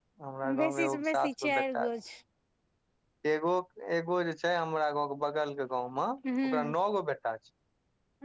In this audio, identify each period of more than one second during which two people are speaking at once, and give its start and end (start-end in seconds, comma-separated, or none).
0.6-1.9